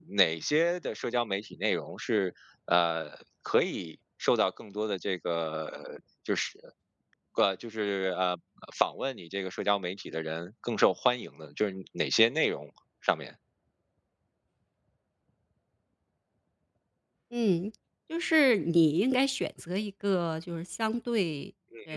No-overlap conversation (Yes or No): Yes